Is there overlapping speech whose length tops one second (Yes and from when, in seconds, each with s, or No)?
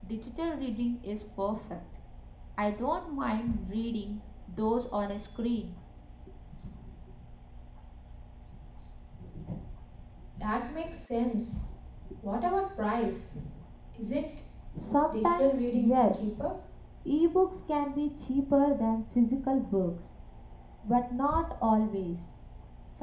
Yes, from 15.1 s